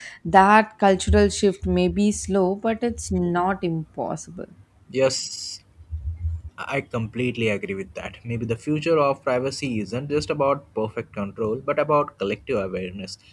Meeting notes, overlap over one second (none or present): none